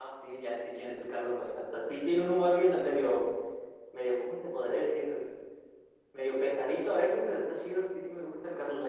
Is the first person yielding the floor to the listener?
Yes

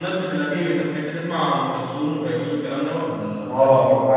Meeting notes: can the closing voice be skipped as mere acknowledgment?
No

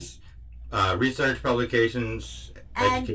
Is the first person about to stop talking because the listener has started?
Yes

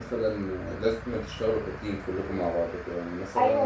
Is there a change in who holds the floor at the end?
Yes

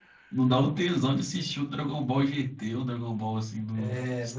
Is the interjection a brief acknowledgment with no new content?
No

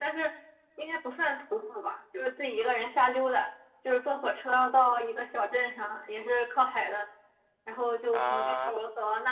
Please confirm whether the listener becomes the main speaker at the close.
No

